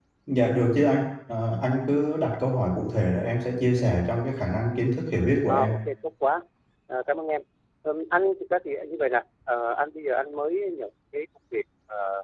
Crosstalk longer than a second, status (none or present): none